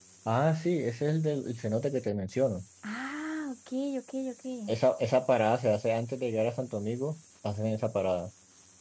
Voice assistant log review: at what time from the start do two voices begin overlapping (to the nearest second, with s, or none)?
none